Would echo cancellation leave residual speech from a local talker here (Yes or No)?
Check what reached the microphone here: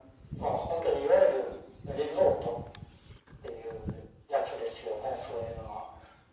No